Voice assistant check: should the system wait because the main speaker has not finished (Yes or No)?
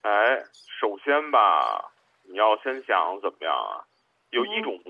Yes